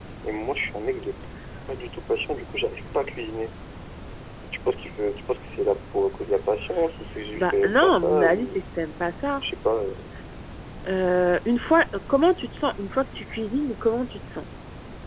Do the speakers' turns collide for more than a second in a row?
Yes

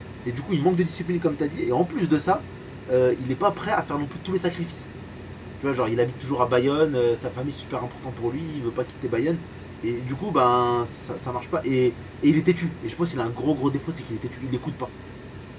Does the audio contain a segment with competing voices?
No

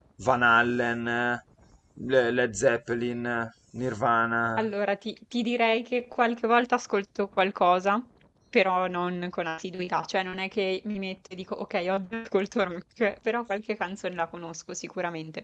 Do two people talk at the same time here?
No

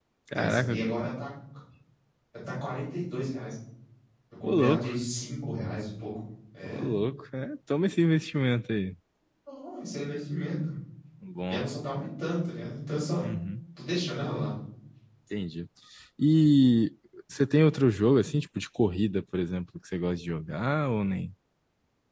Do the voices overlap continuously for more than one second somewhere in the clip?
No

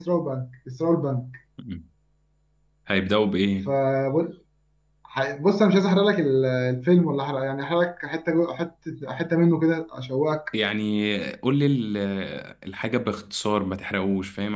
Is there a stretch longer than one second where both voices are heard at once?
No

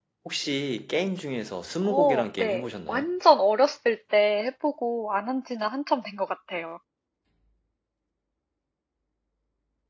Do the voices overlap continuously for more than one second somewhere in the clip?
Yes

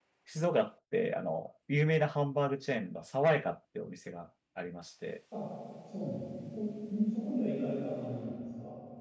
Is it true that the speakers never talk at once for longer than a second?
Yes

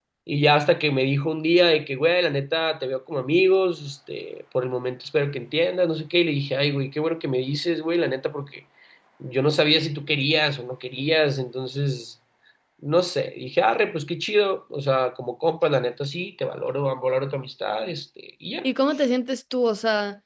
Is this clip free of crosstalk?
Yes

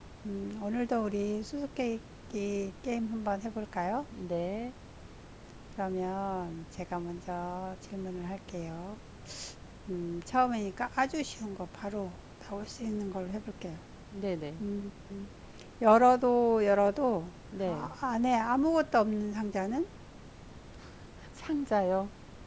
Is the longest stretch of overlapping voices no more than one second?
Yes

